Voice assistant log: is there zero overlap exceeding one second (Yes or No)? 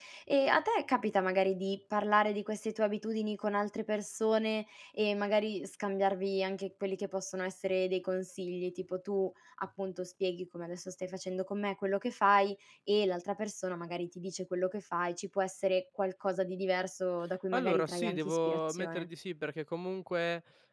No